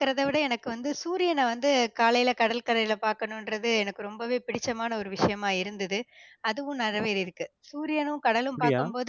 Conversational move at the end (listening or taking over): listening